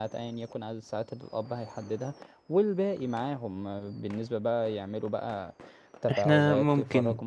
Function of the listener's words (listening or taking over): listening